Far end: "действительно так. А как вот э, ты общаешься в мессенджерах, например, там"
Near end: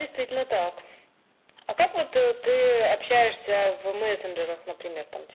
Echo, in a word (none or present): present